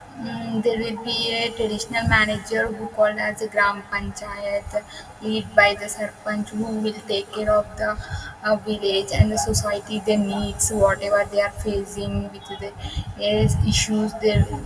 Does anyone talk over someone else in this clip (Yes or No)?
No